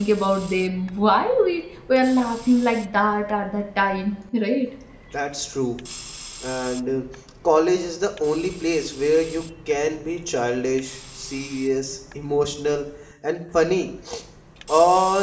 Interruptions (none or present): none